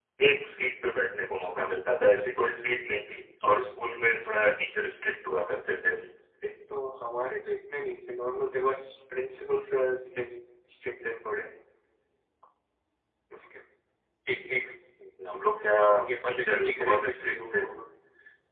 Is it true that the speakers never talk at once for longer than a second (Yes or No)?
No